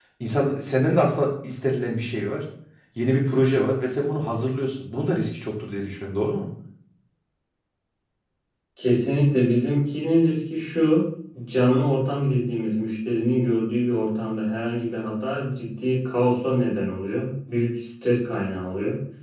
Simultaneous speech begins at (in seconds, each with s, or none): none